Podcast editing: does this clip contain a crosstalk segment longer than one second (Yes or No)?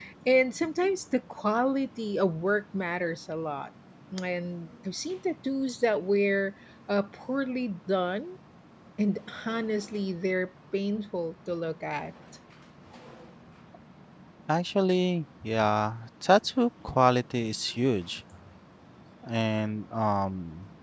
No